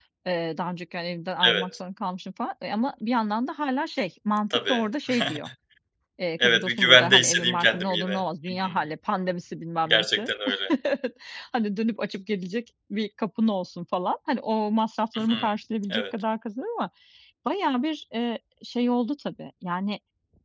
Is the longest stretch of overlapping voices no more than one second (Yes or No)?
No